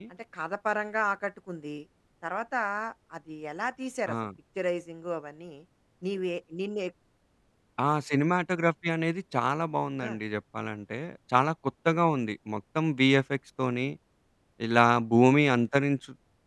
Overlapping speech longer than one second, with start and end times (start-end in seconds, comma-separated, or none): none